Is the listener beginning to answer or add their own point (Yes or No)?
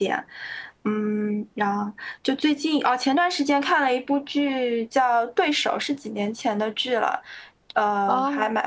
Yes